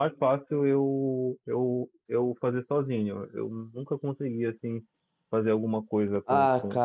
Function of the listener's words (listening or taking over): taking over